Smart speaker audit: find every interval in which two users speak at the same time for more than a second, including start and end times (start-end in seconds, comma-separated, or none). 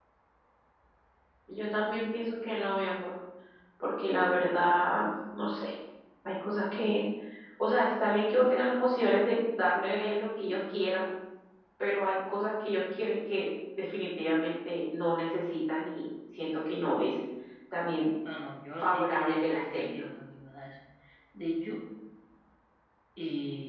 18.8-20.0